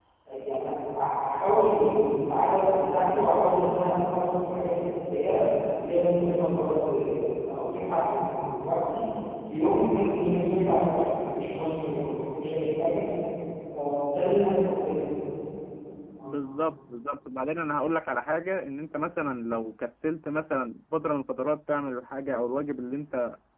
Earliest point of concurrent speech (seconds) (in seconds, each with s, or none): none